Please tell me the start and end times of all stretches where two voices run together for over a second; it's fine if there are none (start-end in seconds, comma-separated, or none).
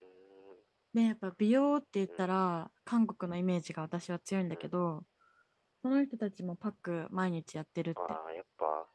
none